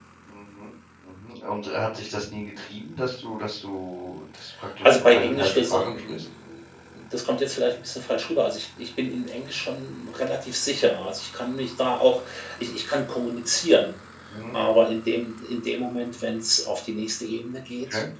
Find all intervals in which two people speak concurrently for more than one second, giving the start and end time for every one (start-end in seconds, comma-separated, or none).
4.8-6.2